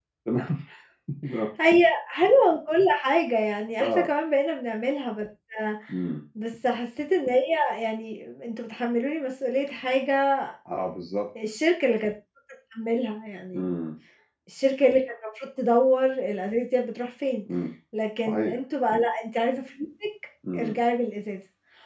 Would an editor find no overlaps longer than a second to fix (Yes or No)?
Yes